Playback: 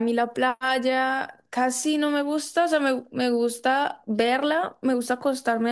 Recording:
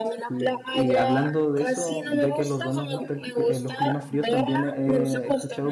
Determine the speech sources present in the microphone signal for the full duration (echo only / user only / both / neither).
both